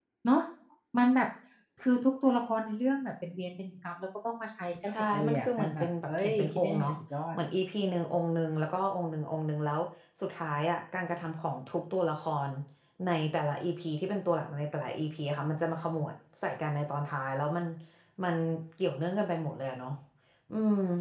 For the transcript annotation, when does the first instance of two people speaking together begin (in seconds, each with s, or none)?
4.9 s